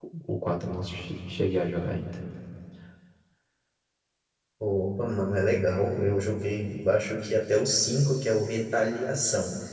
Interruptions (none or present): none